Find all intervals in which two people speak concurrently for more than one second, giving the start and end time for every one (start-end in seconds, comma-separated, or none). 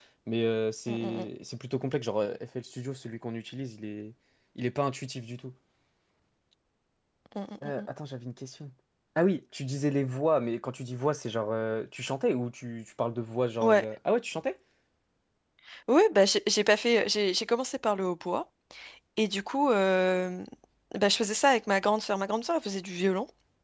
none